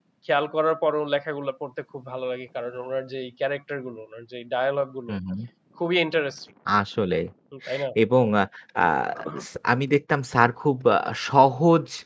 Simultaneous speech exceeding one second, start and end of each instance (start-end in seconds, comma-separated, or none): none